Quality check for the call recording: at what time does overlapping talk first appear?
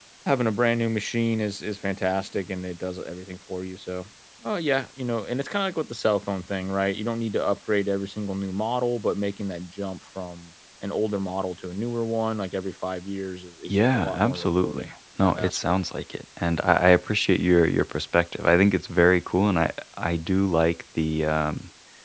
13.6 s

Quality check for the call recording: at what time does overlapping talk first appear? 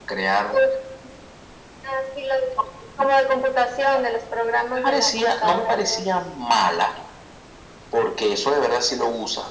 4.8 s

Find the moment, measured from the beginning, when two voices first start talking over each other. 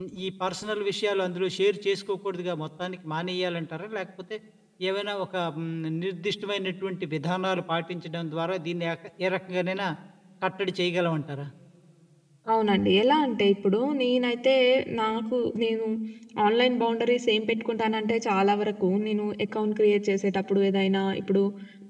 none

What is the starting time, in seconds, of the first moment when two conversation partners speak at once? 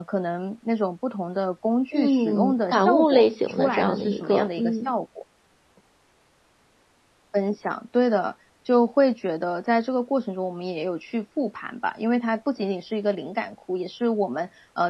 1.9 s

